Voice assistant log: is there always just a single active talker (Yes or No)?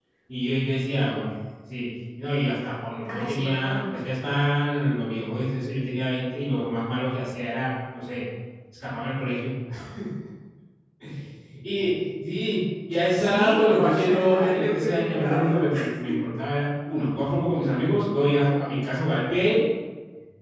No